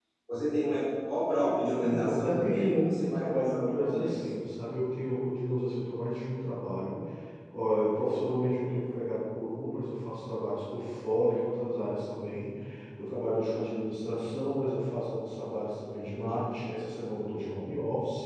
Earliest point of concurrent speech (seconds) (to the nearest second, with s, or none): 2 s